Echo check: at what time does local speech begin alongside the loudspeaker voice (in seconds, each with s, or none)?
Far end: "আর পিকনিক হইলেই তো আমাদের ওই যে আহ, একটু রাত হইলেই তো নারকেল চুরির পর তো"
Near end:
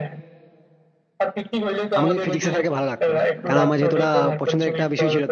2.0 s